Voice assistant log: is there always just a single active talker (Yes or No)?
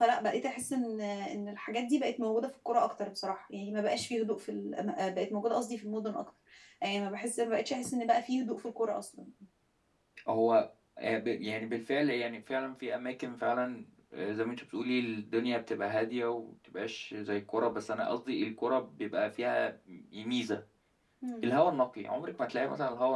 Yes